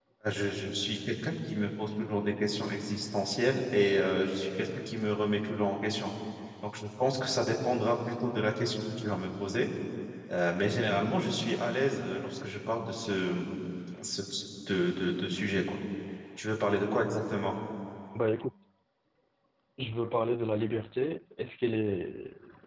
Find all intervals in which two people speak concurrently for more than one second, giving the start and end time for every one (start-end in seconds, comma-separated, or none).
none